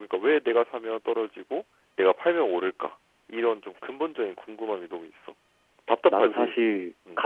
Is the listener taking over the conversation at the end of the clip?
Yes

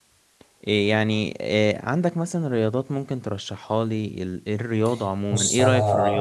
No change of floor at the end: No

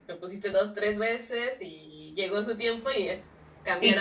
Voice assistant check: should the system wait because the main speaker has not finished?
No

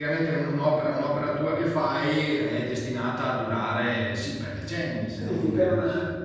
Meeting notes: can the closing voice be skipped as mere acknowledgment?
No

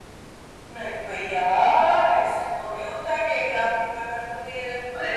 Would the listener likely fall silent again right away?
Yes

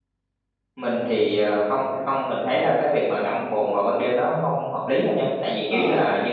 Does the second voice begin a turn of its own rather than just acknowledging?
No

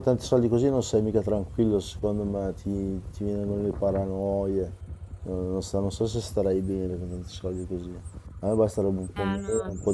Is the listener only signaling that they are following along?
No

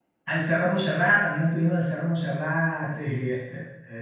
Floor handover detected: No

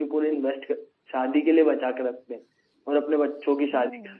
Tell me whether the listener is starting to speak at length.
No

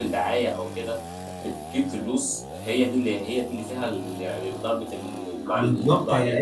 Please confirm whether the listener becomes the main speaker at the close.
Yes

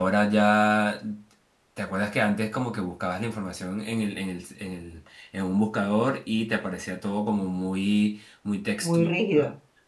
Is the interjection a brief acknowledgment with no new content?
No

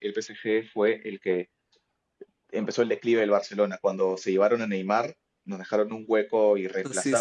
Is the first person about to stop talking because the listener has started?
No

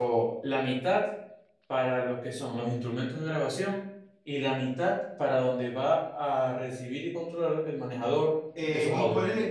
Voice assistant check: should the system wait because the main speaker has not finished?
No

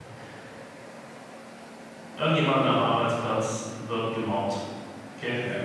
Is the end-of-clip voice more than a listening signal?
No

